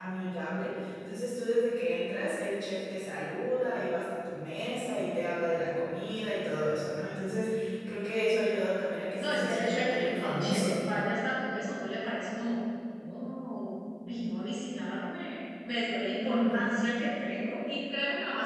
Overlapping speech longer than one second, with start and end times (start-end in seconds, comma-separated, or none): 9.2-10.8